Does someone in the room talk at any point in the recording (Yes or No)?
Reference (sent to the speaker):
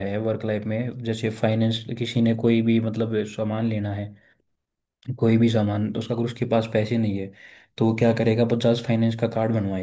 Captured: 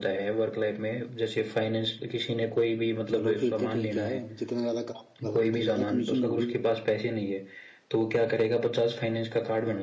Yes